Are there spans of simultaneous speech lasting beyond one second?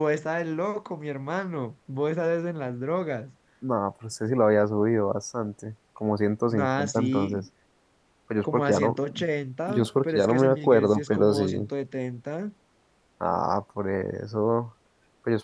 Yes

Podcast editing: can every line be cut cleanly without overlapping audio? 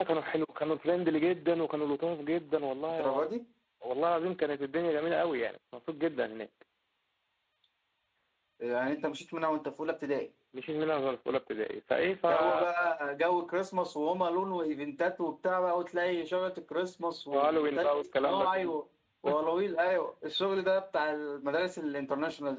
No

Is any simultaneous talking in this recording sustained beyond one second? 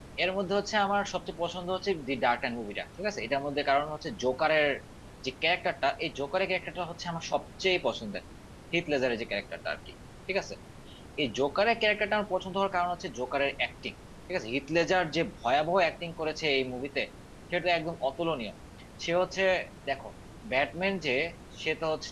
No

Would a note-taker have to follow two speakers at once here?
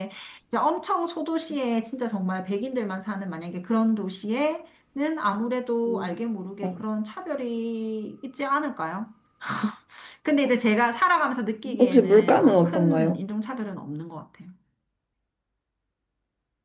Yes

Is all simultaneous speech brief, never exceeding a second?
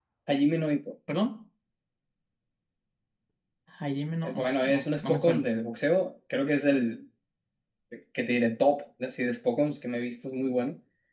No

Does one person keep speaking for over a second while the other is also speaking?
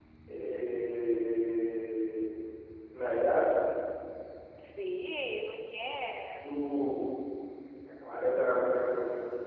No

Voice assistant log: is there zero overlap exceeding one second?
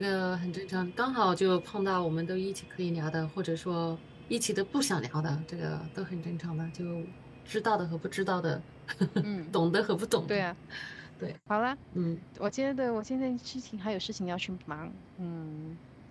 Yes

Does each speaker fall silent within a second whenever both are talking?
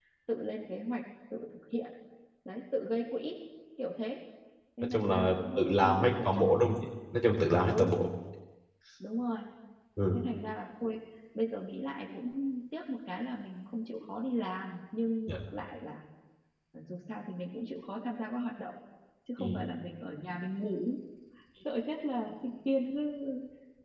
No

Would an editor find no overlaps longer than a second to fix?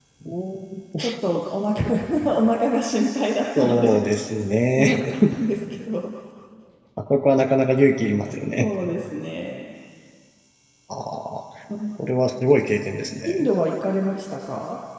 Yes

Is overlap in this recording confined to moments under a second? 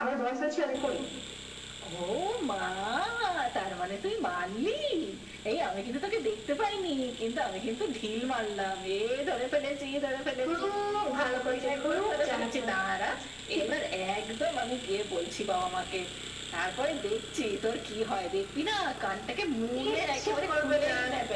No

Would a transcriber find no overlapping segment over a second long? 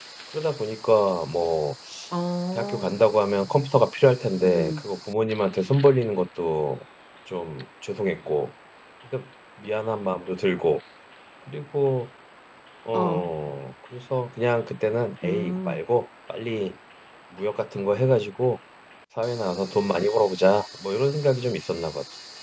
Yes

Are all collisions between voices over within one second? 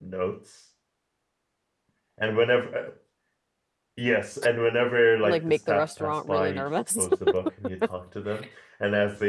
No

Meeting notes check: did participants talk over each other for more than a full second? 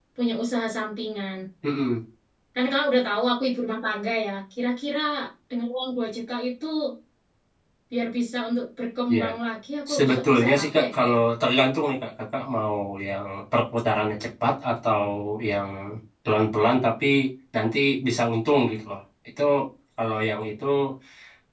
Yes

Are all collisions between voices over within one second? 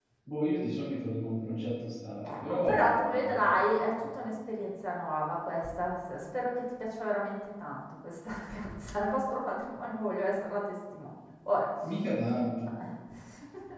No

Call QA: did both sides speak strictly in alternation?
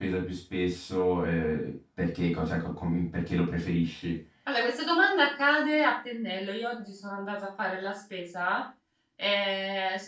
Yes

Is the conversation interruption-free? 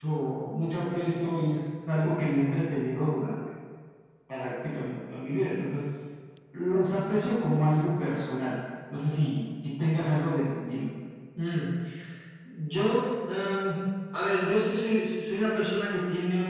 Yes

